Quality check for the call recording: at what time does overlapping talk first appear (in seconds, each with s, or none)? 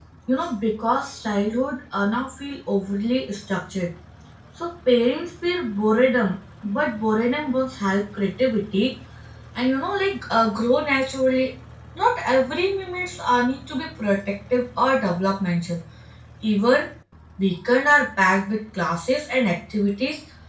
none